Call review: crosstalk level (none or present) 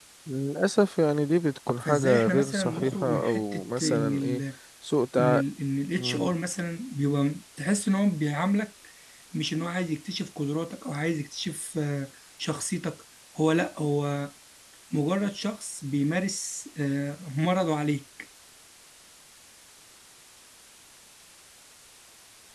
present